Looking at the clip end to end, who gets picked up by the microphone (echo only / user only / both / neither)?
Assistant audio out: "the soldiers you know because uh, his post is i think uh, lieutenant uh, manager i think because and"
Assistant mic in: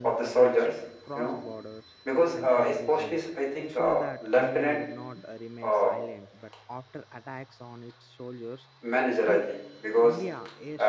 both